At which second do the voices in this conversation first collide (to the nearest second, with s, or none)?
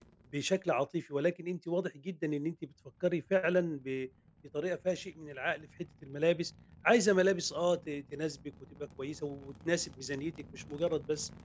none